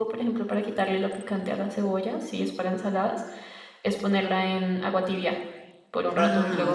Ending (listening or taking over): taking over